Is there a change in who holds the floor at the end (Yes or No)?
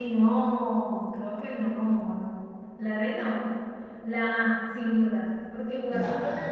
No